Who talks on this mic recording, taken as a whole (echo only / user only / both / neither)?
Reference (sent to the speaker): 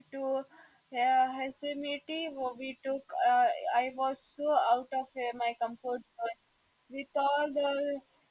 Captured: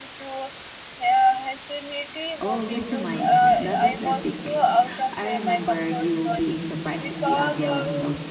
both